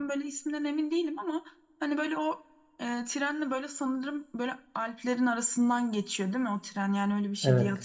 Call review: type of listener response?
taking over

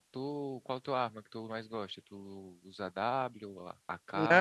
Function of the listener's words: taking over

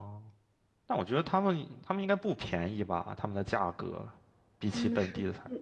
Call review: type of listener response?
taking over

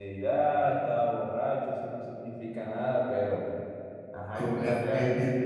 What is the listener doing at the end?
taking over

